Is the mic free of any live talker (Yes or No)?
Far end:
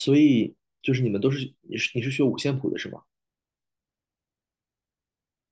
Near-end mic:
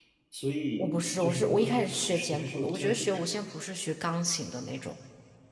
No